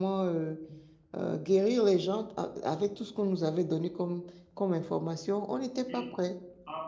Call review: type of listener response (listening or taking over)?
taking over